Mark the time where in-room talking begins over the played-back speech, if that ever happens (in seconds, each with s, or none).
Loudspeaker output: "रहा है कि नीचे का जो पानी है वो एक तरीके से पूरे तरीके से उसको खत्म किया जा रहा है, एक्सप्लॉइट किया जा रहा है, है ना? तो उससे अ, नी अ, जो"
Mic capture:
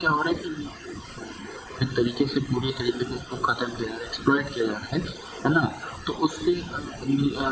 none